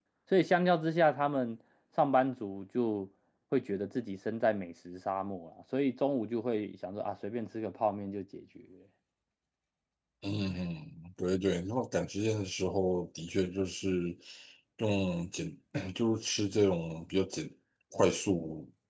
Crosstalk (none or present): none